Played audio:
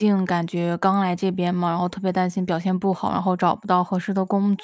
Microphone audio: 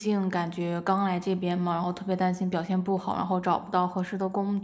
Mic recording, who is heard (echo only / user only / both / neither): echo only